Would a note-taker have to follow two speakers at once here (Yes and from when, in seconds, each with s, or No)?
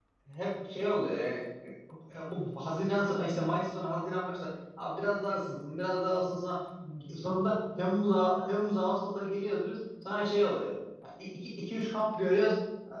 No